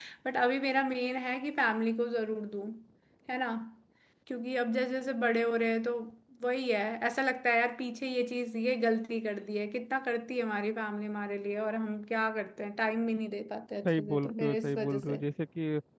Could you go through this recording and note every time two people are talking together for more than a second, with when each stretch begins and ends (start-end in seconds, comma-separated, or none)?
13.8-15.2